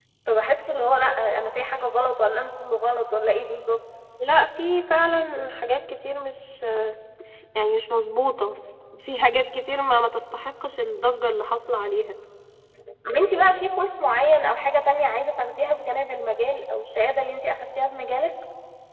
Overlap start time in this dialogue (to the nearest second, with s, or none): none